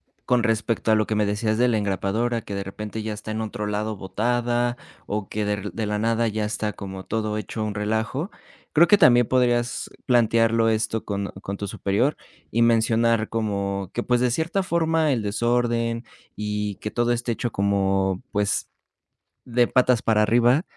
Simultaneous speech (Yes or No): No